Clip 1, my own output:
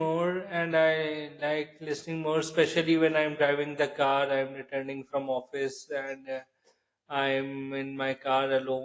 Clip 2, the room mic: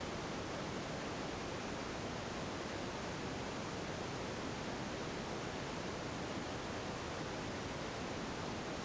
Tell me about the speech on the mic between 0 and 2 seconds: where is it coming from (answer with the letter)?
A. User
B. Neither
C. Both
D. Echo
B